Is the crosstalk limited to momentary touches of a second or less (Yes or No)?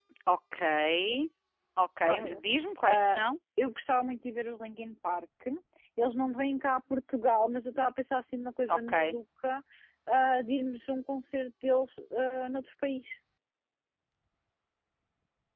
Yes